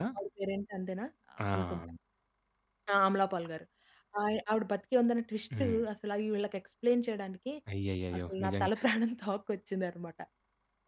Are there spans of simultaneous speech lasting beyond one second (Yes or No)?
No